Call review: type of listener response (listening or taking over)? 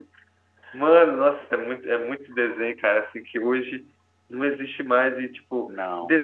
listening